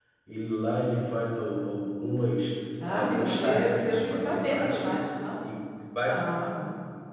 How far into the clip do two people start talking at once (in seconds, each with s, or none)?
2.8 s